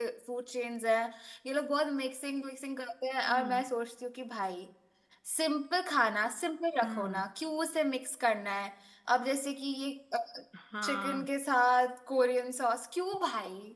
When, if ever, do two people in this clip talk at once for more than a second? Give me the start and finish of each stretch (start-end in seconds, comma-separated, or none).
none